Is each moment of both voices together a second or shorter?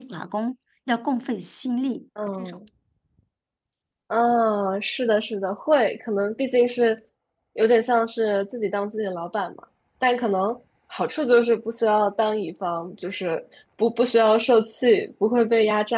Yes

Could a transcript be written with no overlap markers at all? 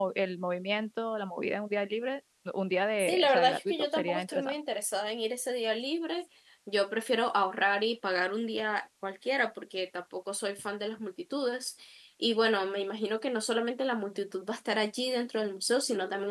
No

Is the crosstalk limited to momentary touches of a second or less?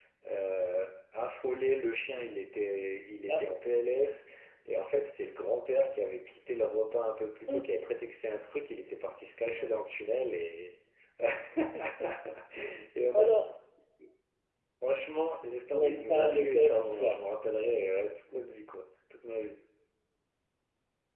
No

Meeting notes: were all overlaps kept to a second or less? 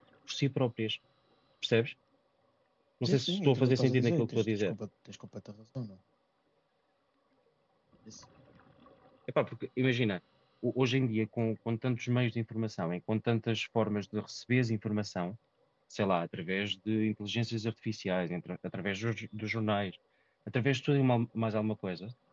No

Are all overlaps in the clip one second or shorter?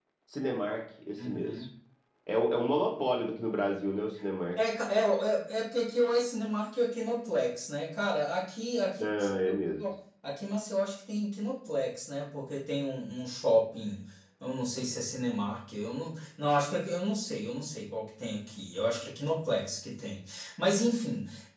Yes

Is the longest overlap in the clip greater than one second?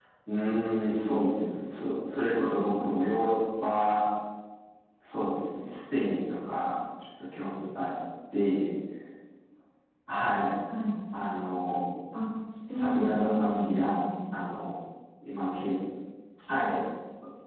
Yes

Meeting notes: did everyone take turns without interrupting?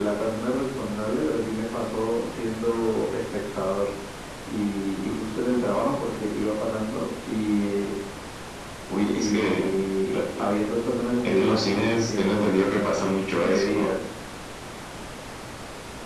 No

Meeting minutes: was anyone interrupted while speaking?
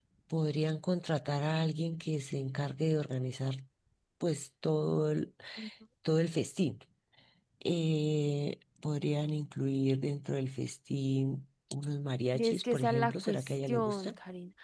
Yes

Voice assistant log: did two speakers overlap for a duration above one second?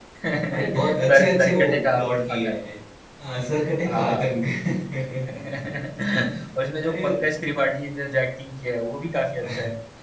Yes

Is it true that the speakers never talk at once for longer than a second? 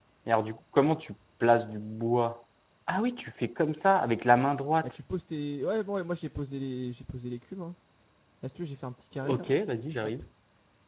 Yes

